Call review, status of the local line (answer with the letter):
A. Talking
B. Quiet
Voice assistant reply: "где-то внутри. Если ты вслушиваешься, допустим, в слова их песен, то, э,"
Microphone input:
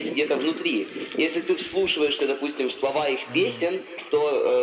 A